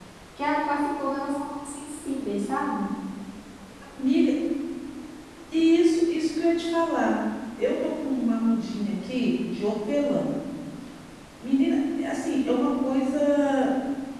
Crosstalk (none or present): none